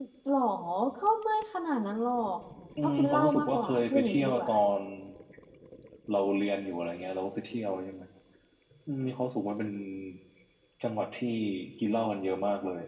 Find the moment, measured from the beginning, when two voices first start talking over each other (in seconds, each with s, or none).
2.8 s